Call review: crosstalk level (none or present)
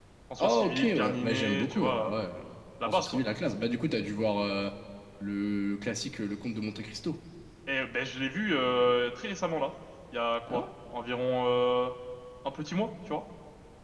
present